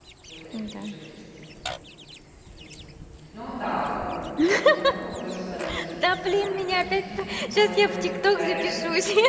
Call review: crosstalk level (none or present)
present